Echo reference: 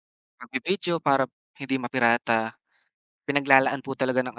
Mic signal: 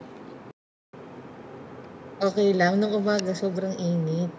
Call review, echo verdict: none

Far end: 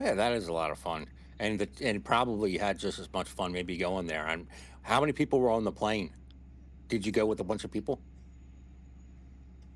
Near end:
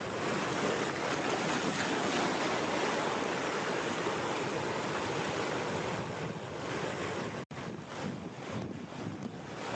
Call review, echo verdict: none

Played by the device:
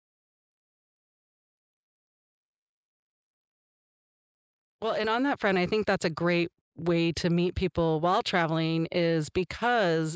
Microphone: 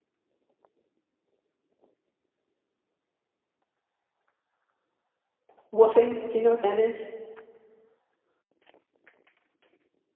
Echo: none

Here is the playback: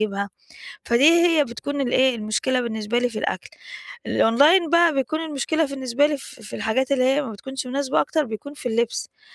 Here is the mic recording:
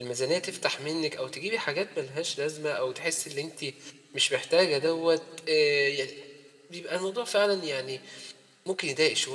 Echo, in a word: none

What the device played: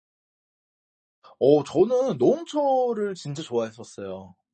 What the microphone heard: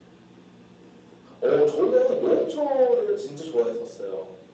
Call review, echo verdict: present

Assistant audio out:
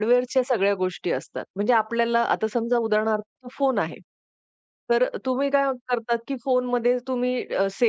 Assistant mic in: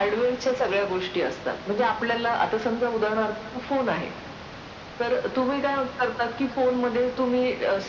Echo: present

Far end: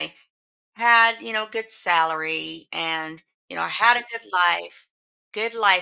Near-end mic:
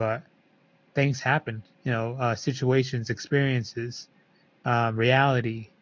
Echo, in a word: none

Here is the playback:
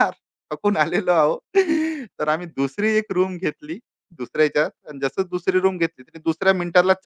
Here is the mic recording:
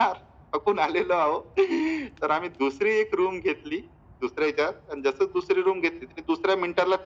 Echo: present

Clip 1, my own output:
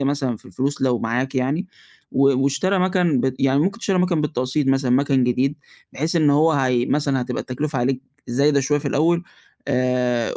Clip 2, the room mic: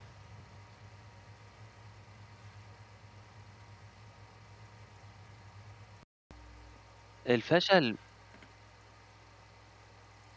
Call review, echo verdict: none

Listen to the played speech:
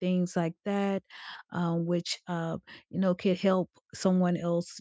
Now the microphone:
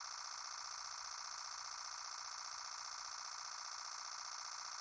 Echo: none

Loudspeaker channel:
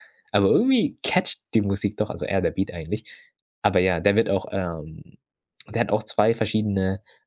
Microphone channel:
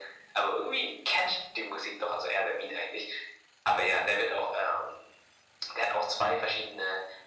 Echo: present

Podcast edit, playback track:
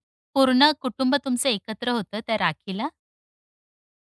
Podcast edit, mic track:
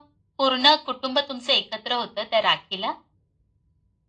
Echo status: present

